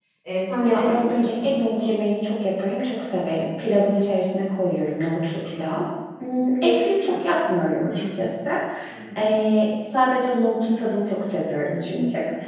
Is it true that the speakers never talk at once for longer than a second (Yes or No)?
No